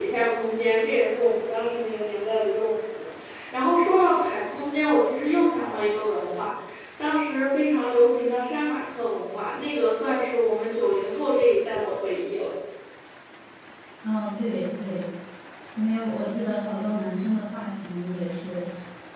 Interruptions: none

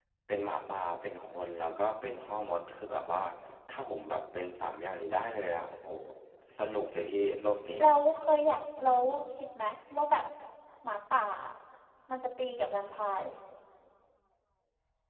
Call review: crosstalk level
none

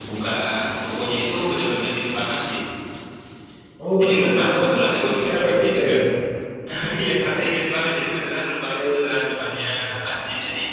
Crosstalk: present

